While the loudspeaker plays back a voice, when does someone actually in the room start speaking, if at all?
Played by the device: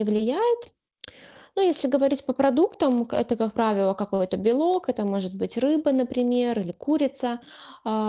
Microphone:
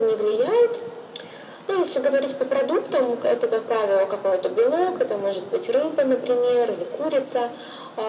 none

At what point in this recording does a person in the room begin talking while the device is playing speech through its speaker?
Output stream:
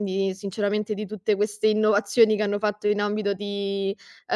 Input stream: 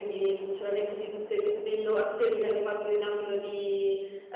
none

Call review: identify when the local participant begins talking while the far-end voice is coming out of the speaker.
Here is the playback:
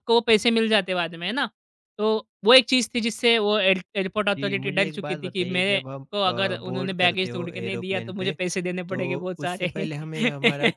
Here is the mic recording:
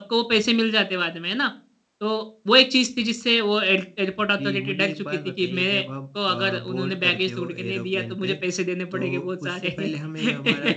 none

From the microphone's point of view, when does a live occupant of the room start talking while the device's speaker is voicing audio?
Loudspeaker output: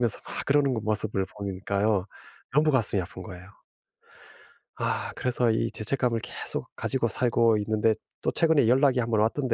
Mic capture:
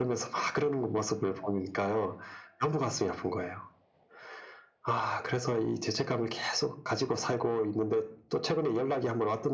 none

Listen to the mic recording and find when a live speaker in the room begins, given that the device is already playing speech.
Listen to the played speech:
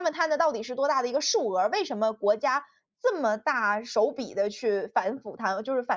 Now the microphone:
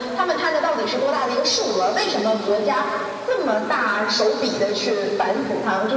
none

